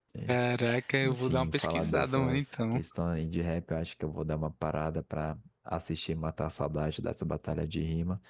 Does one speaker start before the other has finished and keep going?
Yes, from 1.0 s

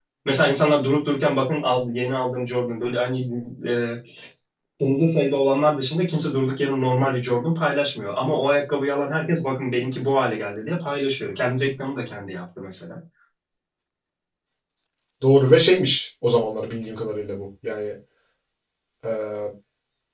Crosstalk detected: No

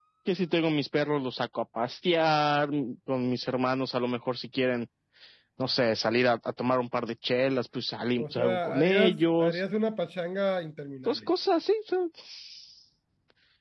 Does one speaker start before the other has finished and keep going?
Yes, from 8.2 s

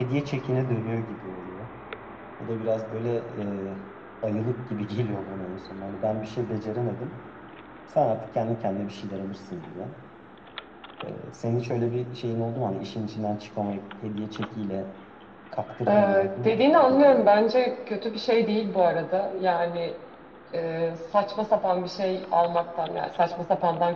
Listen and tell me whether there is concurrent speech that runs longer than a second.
Yes, from 15.9 s

